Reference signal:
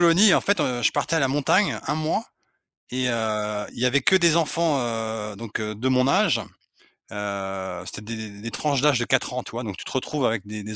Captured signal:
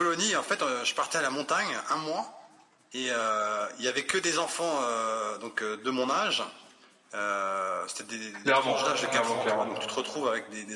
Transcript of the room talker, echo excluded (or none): Clairement, clairement, clairement.